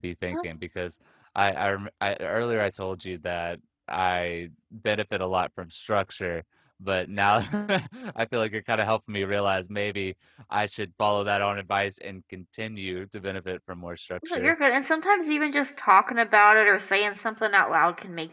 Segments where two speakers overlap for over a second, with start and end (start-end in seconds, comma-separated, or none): none